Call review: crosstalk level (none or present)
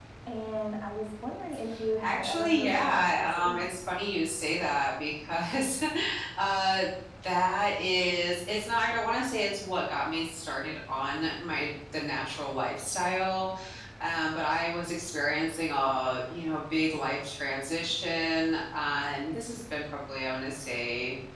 present